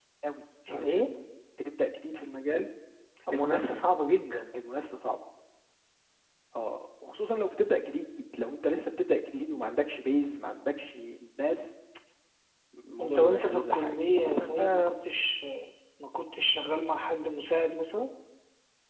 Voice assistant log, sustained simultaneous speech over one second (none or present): present